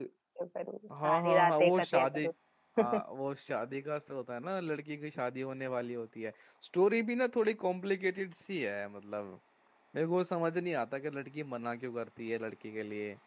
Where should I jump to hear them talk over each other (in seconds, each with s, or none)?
1.0 s